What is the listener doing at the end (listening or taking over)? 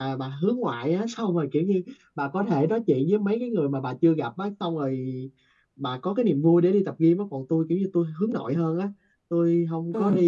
listening